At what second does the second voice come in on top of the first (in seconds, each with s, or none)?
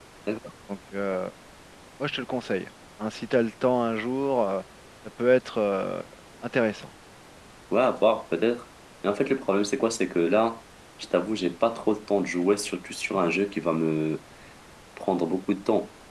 none